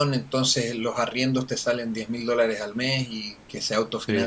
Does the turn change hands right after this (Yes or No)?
No